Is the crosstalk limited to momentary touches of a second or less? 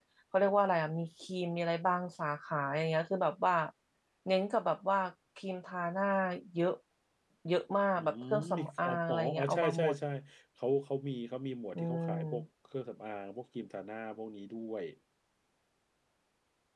No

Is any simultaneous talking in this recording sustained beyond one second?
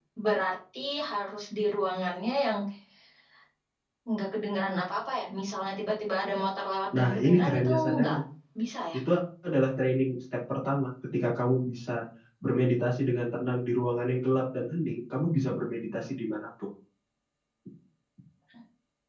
Yes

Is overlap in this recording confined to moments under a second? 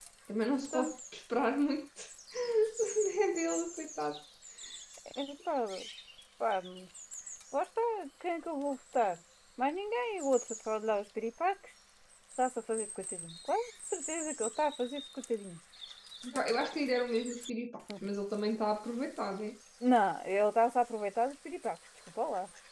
Yes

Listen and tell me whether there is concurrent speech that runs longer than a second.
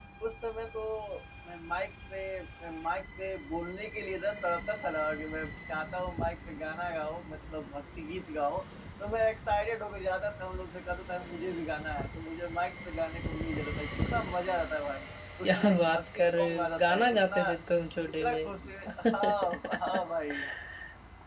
Yes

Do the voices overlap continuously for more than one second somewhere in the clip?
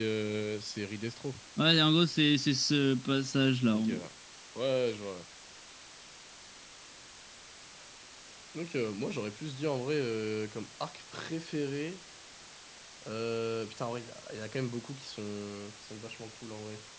No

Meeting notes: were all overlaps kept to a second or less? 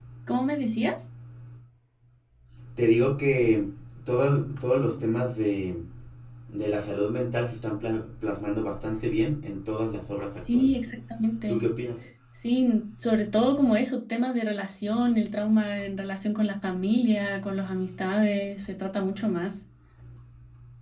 Yes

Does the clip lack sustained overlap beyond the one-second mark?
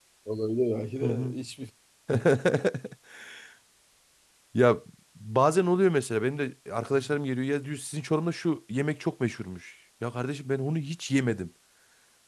Yes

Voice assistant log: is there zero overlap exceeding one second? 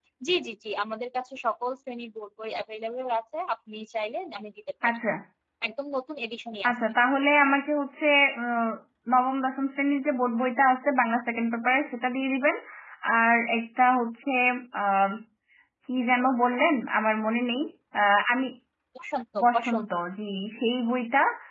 Yes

